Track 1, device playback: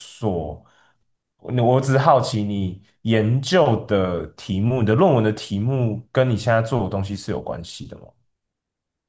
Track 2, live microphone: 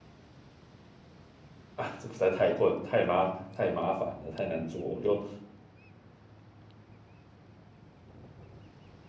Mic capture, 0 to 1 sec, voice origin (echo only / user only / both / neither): neither